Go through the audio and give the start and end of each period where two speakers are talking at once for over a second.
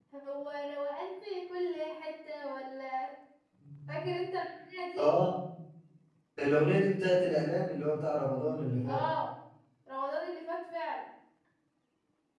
none

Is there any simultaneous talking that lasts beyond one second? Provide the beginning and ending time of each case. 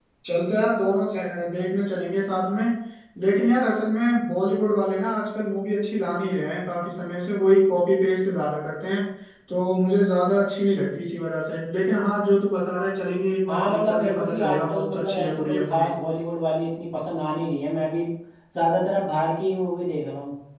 13.5-15.9

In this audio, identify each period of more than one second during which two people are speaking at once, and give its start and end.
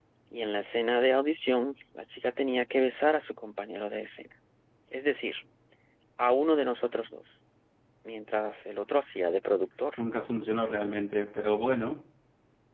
none

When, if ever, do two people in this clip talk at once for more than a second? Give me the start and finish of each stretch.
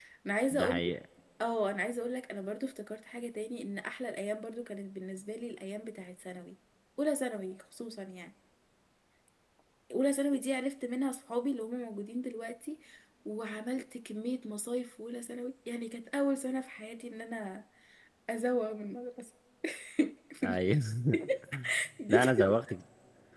none

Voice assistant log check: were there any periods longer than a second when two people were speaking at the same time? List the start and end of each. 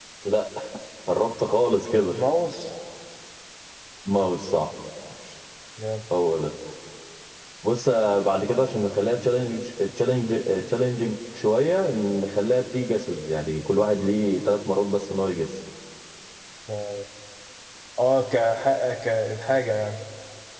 none

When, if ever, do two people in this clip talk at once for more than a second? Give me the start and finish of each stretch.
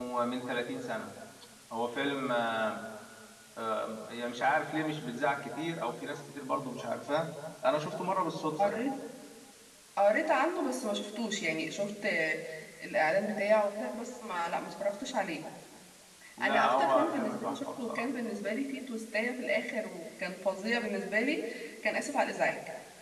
16.4-18.1

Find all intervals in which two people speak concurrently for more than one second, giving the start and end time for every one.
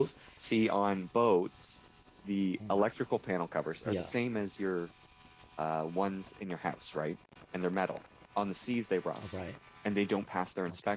none

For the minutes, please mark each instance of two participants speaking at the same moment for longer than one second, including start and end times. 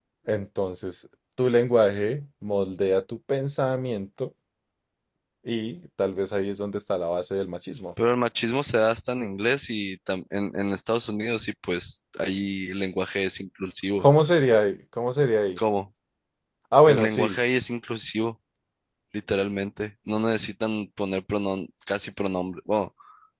none

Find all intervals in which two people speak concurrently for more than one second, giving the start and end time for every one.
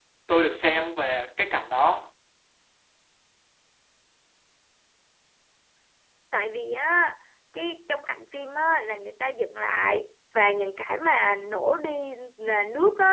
none

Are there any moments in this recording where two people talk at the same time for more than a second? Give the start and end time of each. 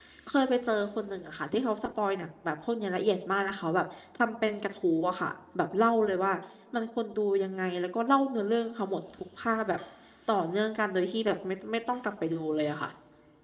none

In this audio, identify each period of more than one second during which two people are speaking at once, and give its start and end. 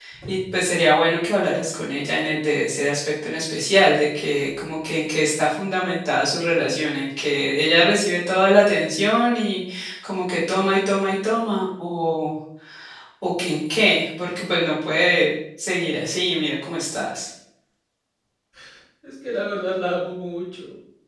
none

